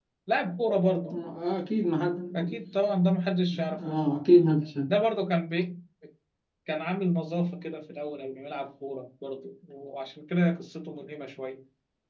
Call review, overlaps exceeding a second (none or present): none